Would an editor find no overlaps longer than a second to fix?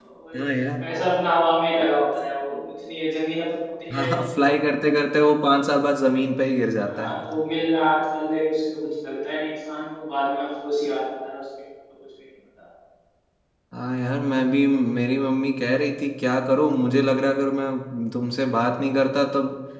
Yes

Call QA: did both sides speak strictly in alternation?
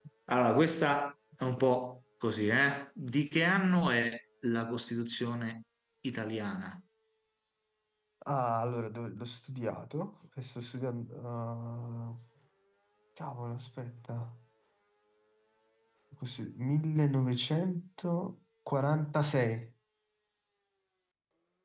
Yes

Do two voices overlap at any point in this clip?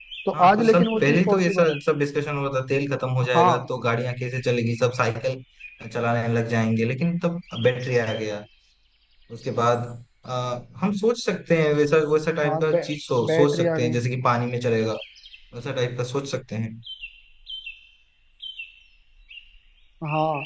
Yes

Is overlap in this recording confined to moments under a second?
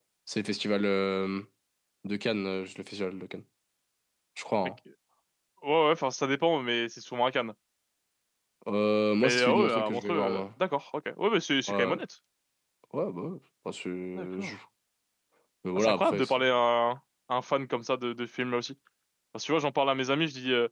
No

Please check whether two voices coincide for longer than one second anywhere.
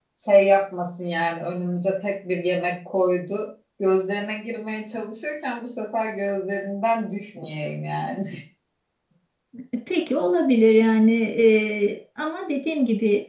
No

